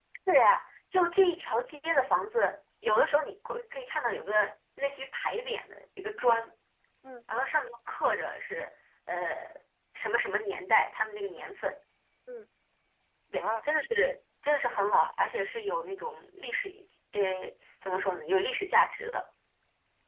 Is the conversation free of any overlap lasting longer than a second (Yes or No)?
Yes